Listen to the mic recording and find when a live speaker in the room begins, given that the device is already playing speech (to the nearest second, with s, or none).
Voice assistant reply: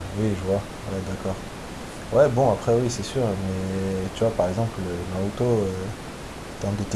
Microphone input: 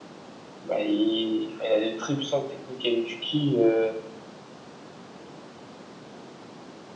1 s